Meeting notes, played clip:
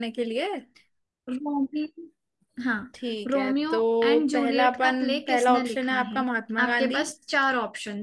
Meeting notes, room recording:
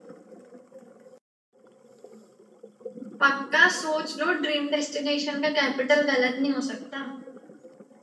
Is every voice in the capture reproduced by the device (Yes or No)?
No